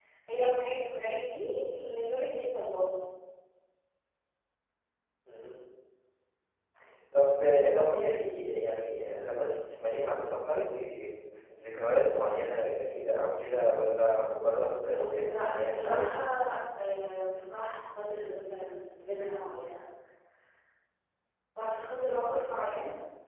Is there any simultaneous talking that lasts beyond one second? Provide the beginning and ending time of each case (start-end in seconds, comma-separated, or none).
14.9-16.1